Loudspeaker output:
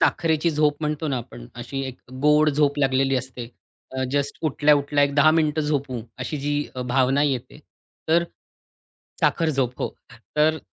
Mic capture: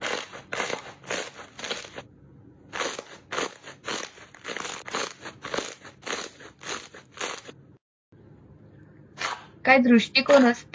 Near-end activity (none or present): present